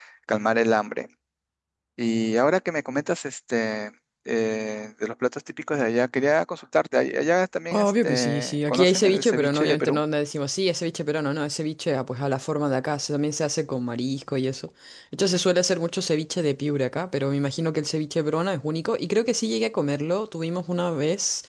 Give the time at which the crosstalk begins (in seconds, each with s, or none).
7.7 s